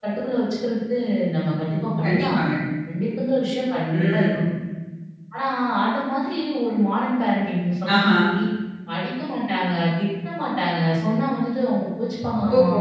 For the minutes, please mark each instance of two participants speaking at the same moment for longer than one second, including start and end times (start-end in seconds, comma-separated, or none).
none